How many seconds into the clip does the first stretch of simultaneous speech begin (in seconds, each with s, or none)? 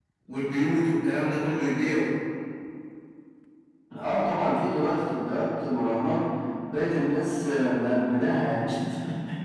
none